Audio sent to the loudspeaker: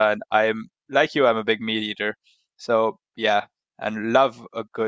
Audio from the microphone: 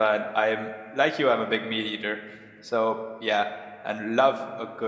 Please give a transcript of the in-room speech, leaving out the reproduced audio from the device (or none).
none